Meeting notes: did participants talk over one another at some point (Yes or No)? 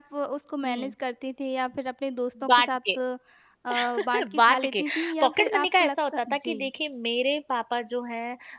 Yes